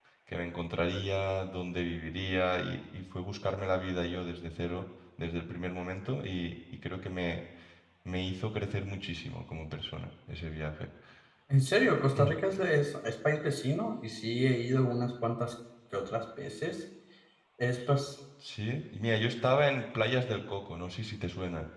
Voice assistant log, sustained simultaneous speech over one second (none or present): none